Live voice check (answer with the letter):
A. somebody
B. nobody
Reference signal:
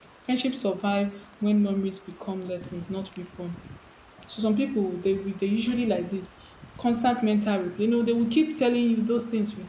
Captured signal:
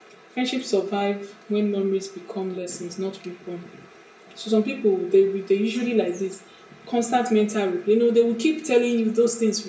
B